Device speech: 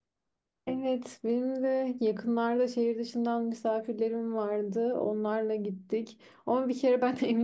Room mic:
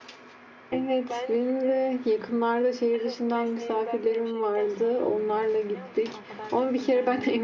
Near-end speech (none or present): present